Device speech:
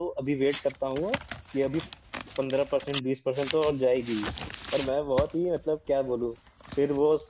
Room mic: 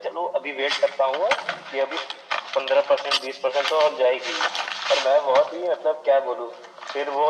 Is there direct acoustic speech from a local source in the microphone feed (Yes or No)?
No